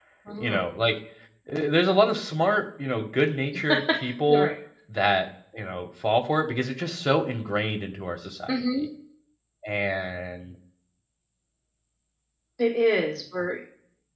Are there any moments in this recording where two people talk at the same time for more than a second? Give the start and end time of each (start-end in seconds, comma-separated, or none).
none